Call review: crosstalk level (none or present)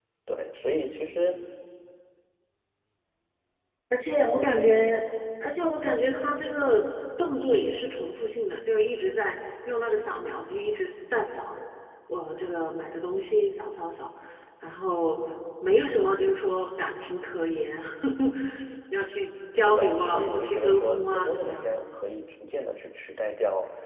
present